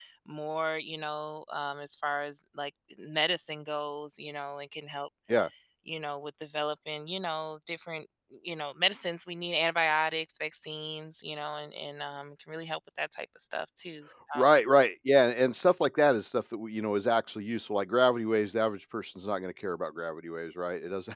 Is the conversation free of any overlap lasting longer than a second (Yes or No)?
Yes